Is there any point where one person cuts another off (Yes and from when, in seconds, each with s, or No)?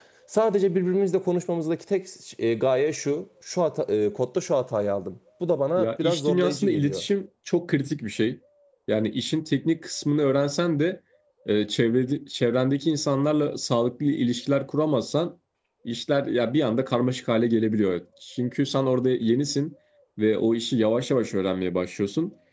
Yes, from 5.8 s